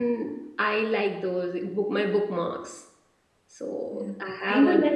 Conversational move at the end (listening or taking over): taking over